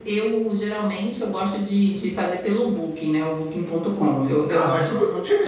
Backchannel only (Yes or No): No